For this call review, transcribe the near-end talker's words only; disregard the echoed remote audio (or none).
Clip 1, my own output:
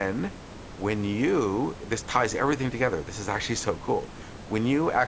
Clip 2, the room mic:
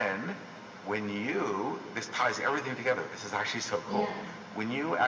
yeah.